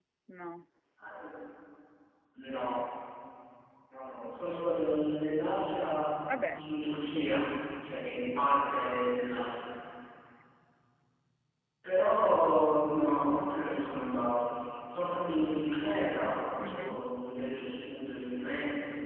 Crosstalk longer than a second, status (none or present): none